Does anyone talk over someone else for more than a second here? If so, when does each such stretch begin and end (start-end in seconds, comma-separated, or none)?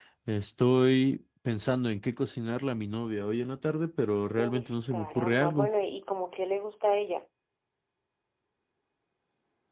4.4-5.7